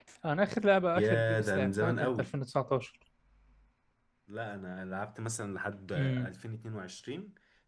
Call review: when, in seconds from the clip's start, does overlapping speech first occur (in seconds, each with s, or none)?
1.0 s